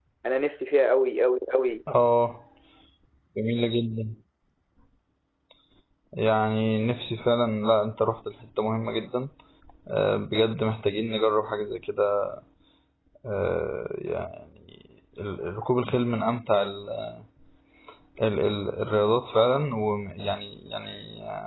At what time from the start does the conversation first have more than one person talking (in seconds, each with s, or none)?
none